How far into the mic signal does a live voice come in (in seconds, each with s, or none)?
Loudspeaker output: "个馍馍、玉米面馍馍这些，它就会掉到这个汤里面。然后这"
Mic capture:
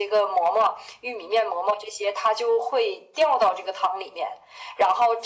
none